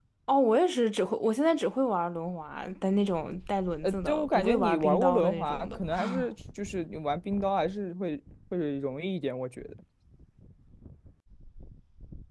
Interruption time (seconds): 3.8 s

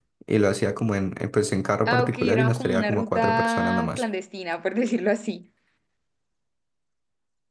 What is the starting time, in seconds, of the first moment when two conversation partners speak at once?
1.9 s

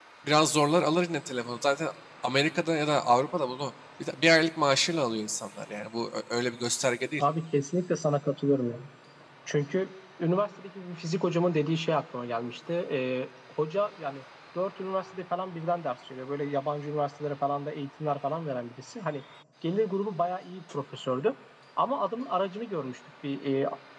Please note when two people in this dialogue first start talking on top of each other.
none

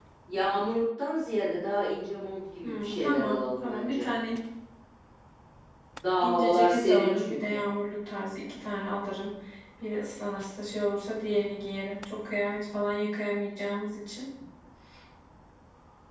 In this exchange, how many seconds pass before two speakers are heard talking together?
2.6 s

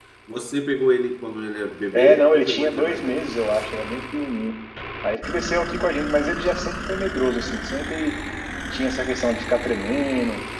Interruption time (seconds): 1.9 s

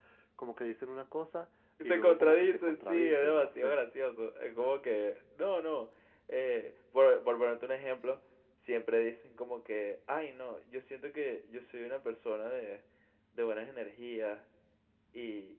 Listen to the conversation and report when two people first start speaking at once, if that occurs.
1.8 s

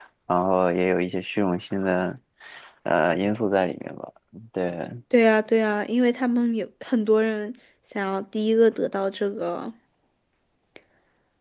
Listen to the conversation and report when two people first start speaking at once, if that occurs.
none

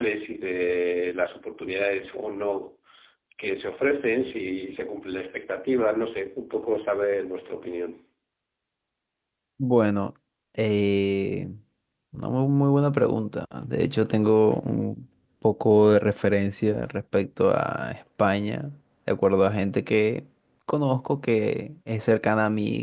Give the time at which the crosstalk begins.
none

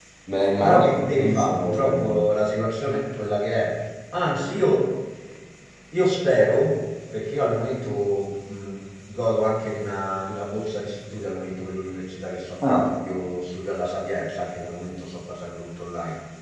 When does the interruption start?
0.6 s

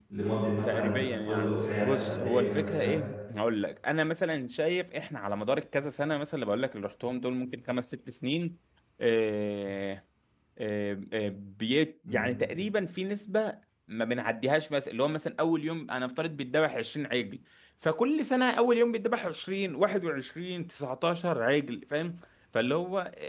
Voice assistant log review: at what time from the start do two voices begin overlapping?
0.6 s

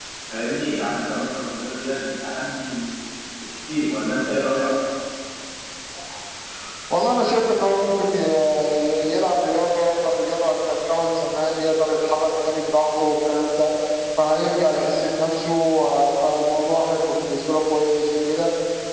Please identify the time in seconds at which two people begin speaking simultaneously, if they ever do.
none

